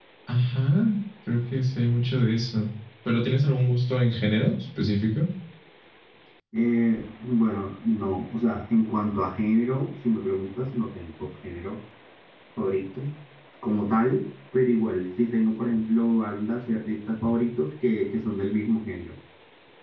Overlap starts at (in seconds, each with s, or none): none